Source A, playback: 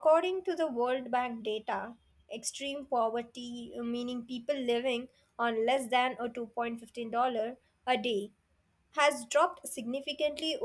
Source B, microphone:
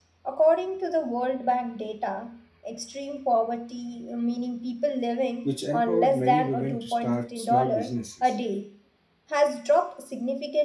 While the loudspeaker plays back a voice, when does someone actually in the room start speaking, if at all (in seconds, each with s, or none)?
5.4 s